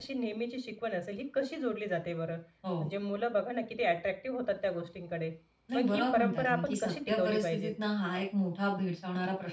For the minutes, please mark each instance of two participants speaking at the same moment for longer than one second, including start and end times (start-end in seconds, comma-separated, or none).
5.7-7.7